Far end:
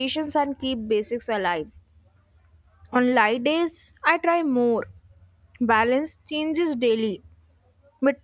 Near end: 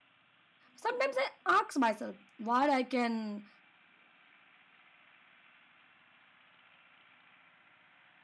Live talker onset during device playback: 0.7 s

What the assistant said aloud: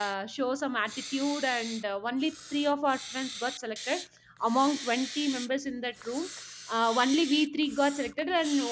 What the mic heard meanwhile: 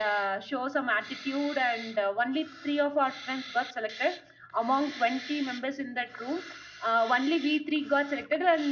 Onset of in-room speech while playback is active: none

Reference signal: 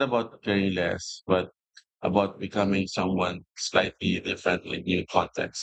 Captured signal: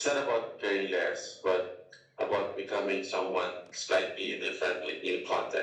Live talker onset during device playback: none

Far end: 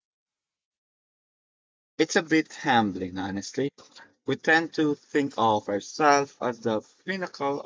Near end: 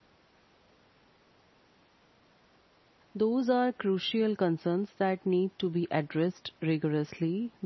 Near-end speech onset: 3.1 s

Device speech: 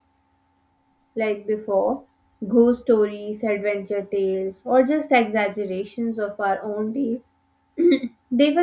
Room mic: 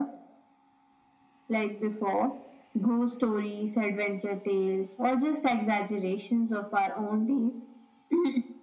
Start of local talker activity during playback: none

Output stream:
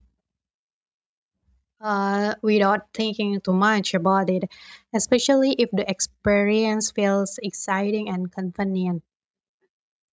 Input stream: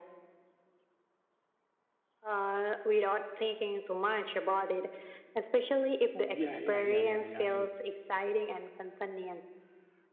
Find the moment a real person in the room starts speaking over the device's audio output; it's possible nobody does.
6.3 s

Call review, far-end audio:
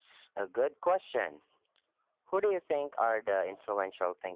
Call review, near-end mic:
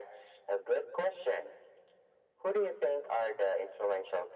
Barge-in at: none

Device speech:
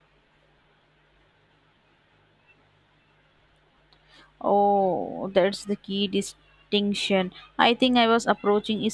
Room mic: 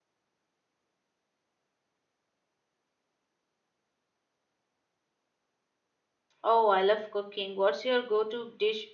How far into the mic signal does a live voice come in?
6.4 s

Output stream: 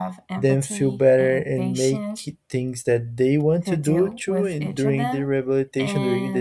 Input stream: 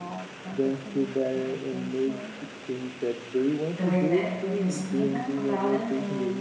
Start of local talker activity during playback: 3.8 s

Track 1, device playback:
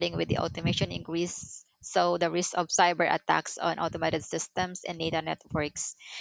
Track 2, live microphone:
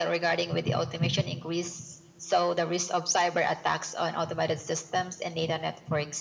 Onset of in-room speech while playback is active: none

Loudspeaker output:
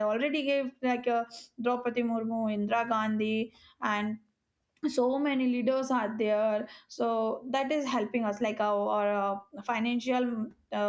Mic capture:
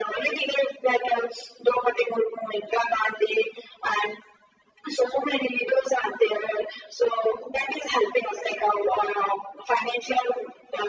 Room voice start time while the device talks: none

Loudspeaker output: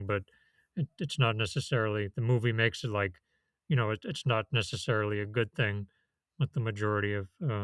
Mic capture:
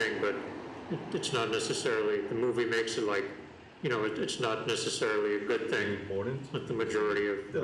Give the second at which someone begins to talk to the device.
5.8 s

